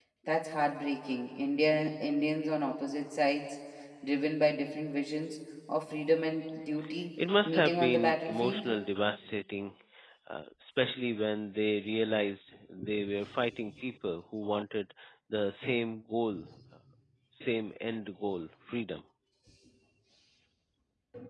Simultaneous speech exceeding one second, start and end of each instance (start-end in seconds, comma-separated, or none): 7.5-8.7